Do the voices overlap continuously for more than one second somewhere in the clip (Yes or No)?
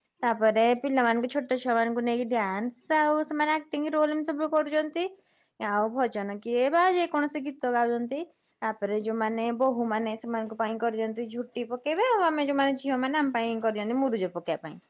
No